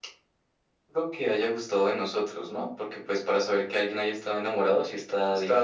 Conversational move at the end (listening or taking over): taking over